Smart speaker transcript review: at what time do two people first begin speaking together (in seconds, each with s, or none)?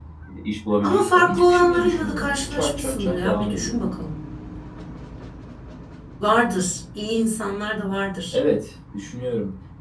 0.8 s